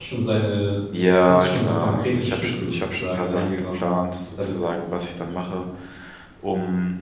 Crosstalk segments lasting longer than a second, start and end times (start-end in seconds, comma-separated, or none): 1.2-3.9